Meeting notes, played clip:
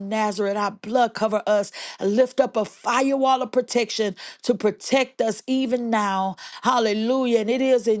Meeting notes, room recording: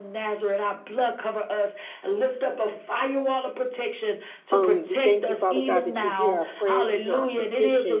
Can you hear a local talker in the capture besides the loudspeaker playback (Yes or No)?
Yes